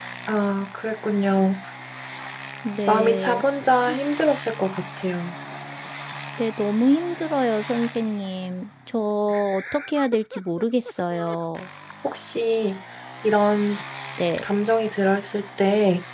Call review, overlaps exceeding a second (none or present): none